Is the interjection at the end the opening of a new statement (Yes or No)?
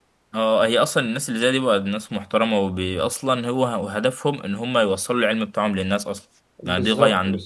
Yes